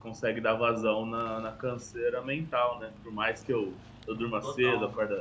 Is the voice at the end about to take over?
No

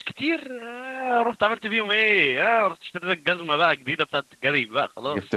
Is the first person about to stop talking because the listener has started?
Yes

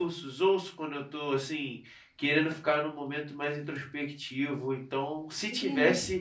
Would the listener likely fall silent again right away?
No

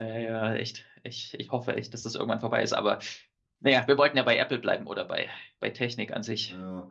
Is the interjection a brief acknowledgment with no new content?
Yes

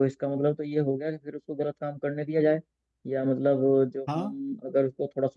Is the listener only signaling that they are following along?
Yes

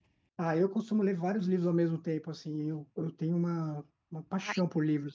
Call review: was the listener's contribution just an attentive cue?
Yes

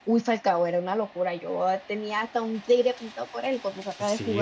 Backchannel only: No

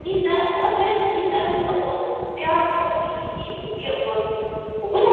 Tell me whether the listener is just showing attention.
No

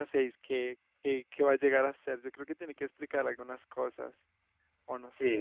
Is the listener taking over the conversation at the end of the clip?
Yes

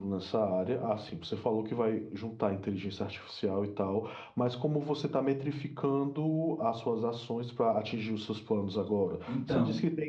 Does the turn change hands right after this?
No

